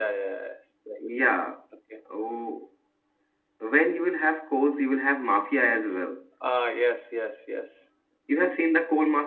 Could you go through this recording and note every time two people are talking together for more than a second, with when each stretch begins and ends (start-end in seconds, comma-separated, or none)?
none